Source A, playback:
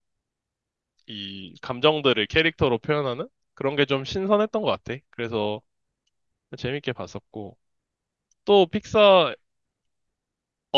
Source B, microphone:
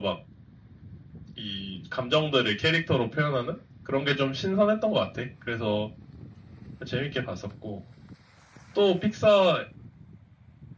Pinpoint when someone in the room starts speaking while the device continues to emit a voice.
none

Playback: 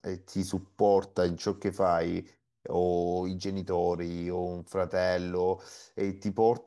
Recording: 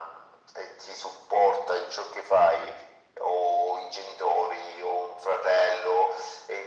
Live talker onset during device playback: none

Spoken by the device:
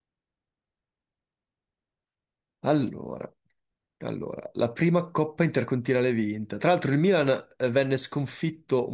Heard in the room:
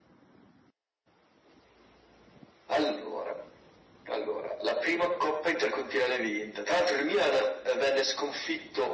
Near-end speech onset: none

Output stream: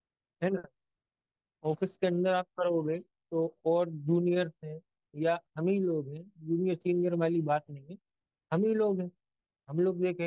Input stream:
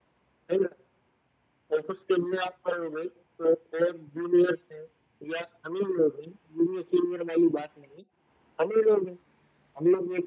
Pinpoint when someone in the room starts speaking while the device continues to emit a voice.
none

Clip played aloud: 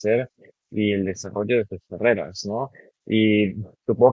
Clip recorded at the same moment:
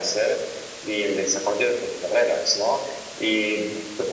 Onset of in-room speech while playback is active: none

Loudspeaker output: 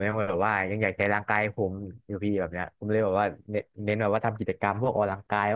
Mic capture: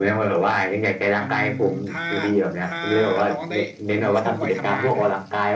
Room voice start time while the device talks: 1.2 s

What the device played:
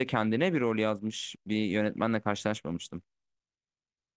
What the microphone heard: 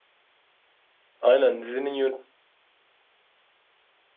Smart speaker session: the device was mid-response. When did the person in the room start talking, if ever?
1.2 s

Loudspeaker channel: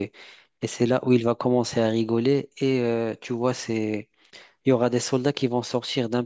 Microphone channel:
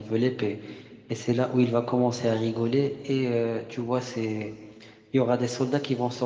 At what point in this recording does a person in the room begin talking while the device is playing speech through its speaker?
none

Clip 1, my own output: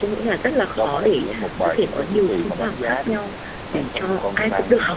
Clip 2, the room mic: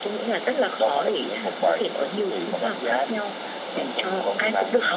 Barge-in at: none

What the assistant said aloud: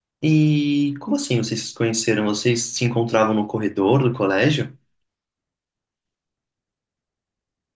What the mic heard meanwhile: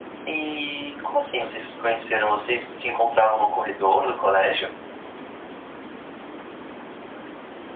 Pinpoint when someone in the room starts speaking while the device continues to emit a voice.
none

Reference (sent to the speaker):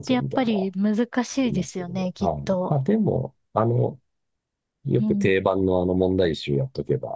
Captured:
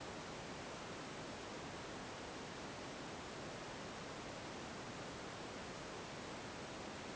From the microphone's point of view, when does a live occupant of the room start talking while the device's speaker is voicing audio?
none

